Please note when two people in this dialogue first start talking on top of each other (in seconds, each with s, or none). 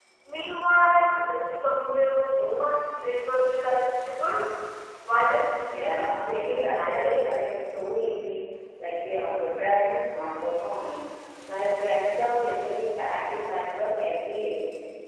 5.7 s